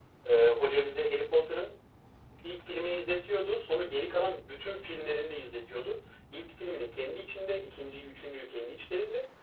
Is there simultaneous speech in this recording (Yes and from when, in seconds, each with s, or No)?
No